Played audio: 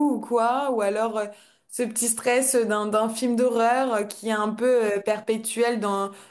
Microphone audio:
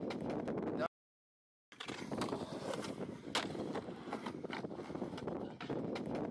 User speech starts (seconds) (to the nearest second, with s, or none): none